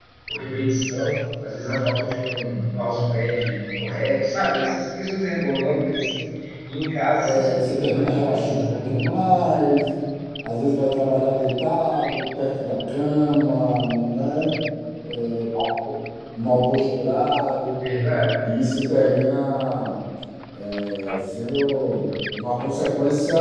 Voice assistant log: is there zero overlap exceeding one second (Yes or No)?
No